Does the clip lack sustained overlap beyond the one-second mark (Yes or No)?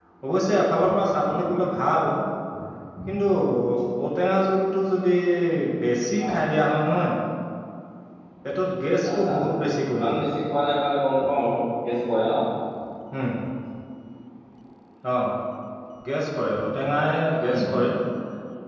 Yes